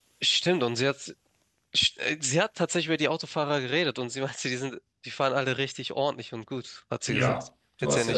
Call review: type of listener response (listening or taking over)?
taking over